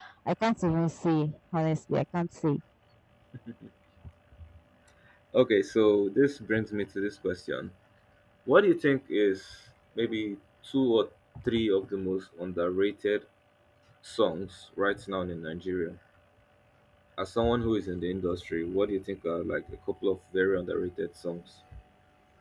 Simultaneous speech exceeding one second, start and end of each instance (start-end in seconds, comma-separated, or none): none